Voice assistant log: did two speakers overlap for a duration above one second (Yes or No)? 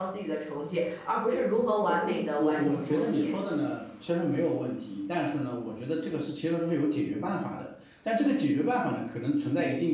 Yes